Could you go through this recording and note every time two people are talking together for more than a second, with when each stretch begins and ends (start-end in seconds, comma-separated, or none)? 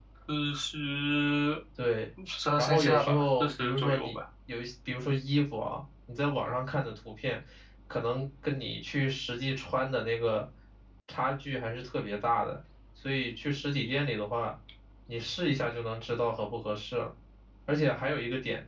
2.6-4.1